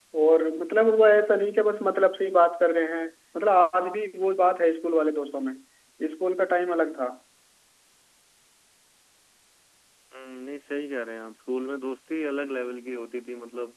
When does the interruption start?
none

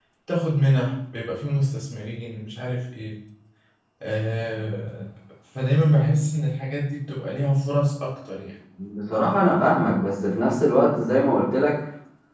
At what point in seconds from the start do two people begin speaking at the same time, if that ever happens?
none

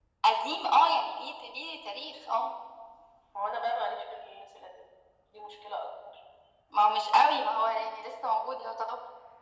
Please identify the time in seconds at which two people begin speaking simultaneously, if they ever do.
none

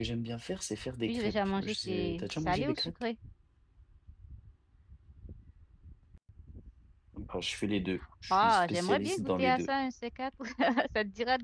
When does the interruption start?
1.1 s

